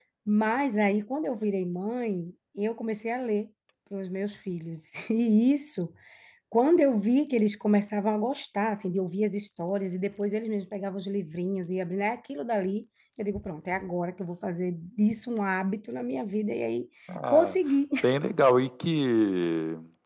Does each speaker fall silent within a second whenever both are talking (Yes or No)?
Yes